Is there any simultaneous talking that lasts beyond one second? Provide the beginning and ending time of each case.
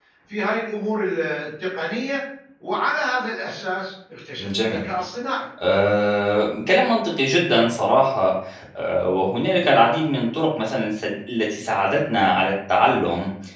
none

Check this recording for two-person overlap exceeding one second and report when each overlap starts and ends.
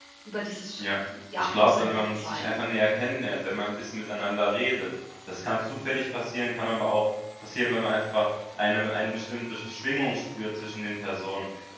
1.4-2.6

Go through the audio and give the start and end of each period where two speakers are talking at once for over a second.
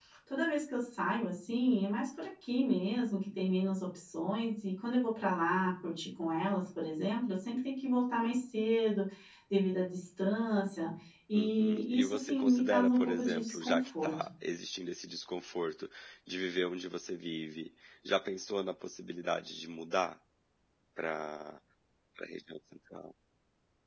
11.3-14.3

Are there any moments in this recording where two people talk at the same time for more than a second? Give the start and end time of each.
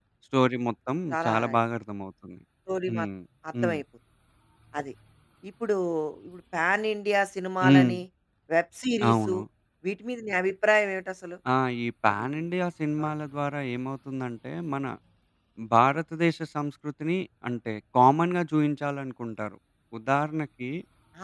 none

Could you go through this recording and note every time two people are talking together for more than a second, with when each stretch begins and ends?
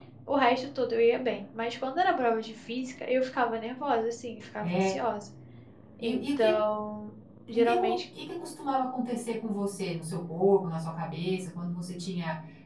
none

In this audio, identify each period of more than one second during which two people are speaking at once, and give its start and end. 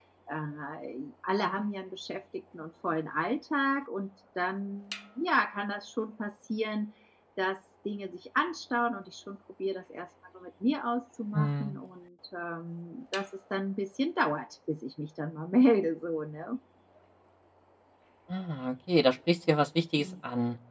none

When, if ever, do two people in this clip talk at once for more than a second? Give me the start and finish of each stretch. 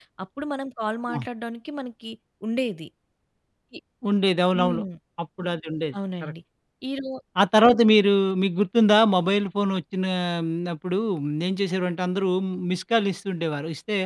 none

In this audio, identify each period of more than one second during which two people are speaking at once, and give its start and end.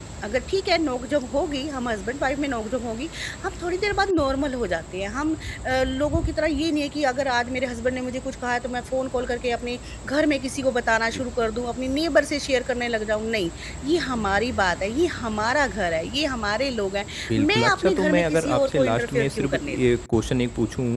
17.4-19.8

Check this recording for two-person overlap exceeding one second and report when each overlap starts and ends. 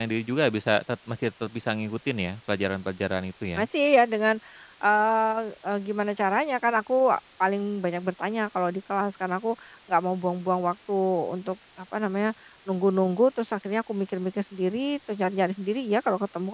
none

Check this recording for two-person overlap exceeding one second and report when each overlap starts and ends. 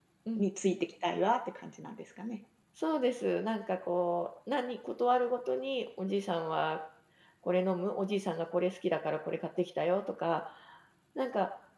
none

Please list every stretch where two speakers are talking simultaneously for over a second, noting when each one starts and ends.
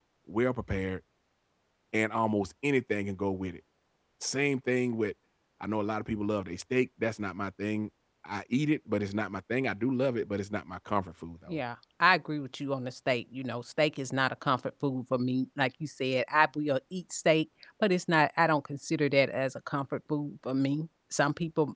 none

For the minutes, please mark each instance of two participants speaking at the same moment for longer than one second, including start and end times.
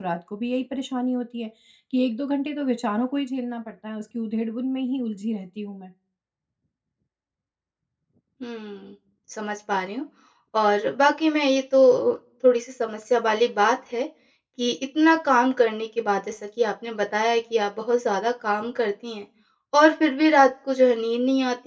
none

